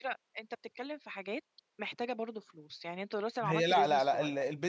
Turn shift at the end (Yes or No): Yes